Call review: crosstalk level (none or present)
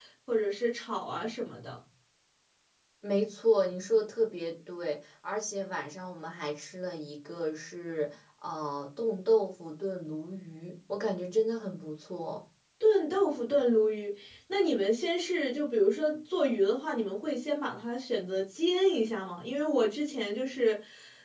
none